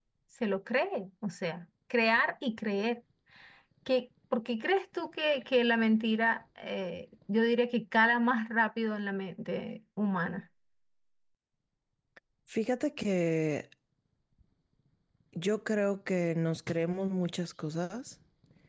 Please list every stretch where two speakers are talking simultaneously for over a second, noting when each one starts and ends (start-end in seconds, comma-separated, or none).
none